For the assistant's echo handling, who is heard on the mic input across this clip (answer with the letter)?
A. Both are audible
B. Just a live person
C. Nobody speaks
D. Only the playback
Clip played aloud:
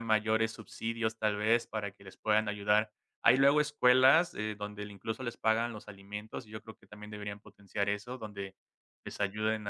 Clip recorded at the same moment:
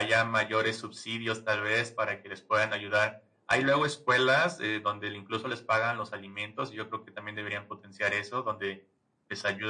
D